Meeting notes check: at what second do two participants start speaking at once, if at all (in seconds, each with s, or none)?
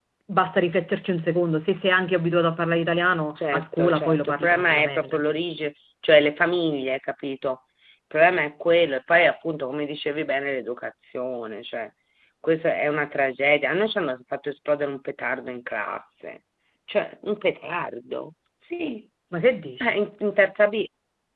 3.4 s